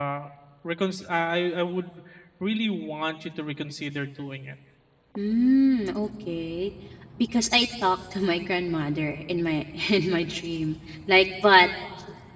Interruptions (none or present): none